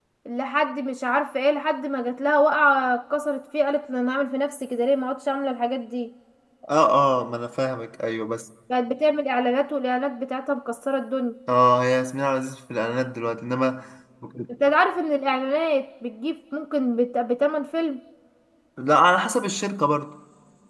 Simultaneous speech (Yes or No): No